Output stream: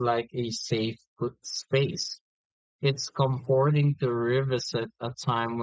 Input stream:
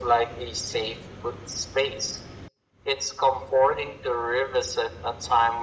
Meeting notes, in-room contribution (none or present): none